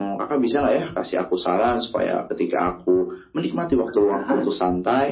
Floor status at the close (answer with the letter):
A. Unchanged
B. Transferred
A